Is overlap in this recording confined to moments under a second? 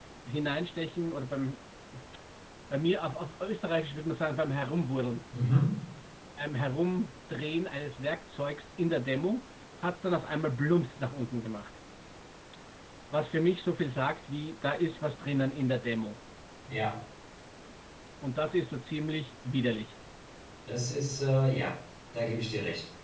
Yes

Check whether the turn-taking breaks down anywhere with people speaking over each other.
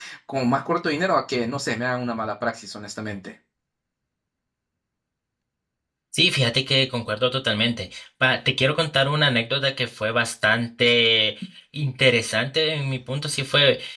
No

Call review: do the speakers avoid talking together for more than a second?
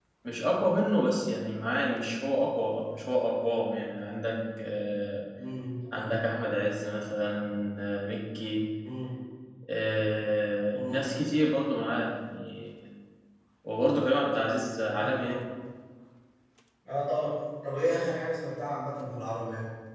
Yes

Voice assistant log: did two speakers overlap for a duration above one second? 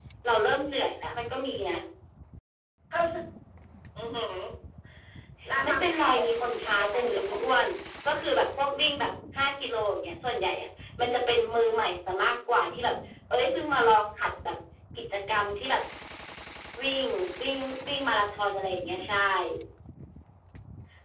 Yes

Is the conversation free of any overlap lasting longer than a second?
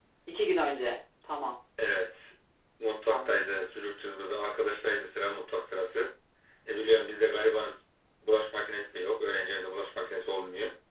Yes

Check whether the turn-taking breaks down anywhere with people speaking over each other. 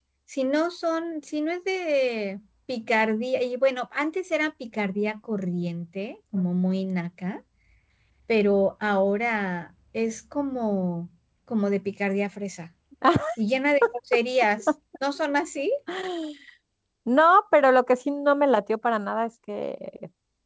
No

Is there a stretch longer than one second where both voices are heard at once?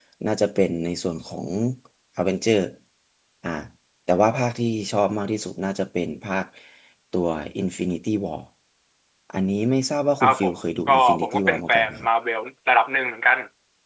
Yes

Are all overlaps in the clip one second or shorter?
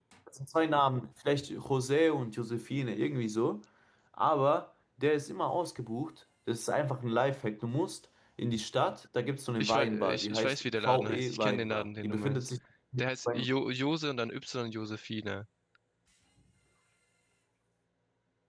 No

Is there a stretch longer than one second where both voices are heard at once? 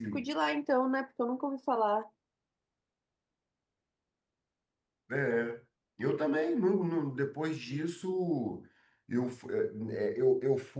No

